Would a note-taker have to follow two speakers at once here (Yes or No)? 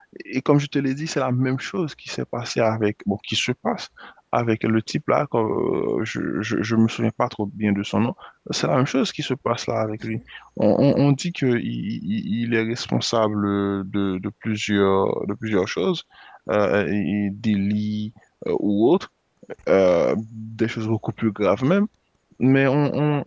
No